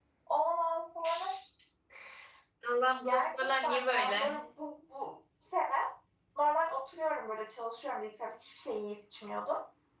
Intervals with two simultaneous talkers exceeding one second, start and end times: 3.0-4.3

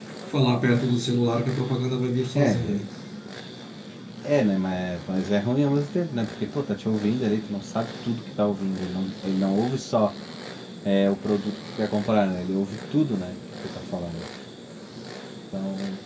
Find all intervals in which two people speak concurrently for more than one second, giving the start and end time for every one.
none

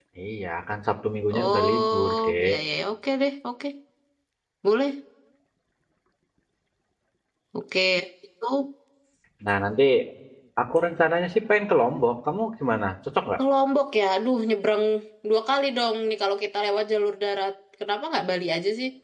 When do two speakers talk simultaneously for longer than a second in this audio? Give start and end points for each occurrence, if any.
1.3-2.5

